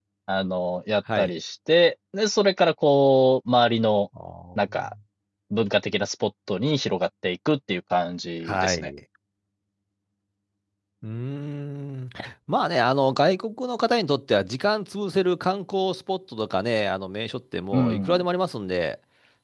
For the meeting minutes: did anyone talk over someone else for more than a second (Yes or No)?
No